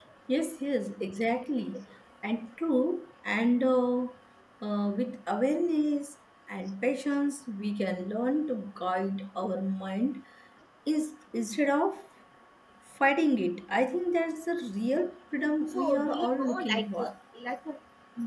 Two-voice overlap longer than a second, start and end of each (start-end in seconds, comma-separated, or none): 15.7-17.1